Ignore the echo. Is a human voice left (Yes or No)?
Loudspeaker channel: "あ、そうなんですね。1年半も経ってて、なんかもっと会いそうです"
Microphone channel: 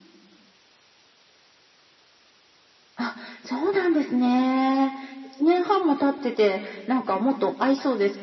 No